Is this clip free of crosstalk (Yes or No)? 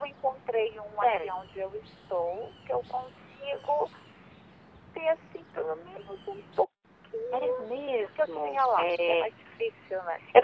No